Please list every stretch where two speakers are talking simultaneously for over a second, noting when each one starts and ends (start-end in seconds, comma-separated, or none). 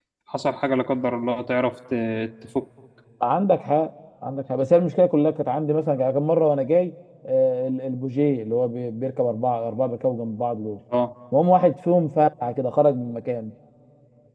none